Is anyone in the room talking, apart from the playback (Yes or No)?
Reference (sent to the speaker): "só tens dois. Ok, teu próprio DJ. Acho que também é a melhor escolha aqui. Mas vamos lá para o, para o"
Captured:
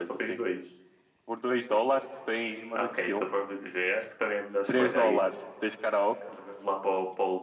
Yes